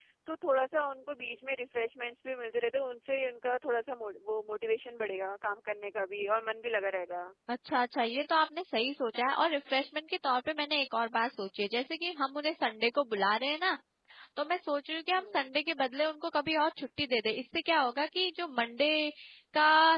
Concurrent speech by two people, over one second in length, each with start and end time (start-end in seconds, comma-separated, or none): none